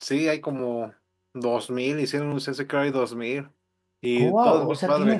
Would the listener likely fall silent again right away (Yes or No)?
No